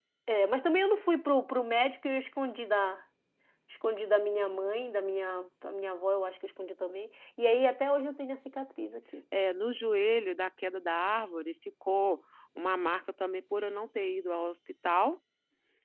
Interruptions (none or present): none